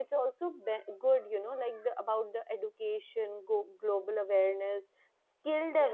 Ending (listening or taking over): listening